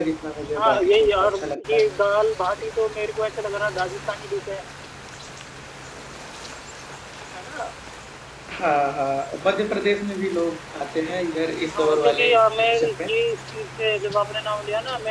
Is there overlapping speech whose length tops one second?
Yes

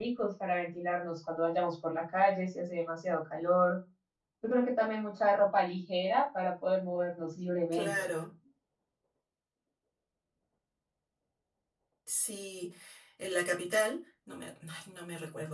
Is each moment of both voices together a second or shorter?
Yes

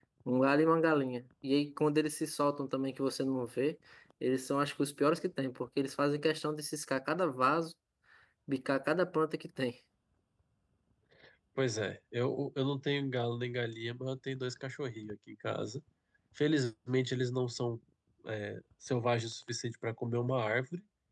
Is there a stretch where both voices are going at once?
No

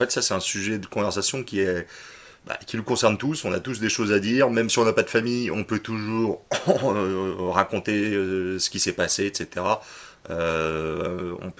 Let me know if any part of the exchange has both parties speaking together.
No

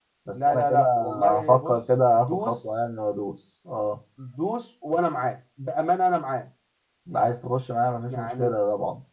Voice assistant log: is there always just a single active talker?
No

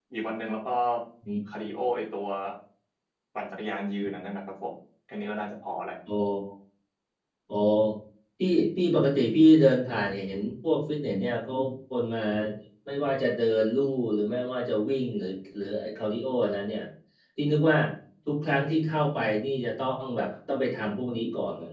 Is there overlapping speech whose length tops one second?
No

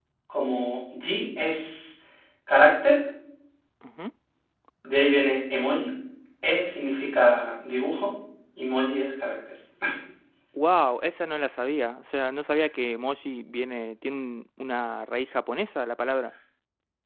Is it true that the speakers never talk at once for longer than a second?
Yes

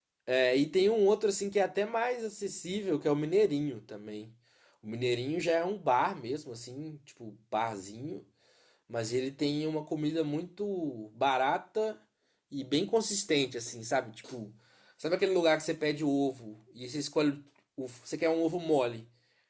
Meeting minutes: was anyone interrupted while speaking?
No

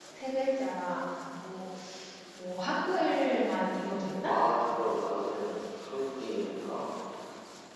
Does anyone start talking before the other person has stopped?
No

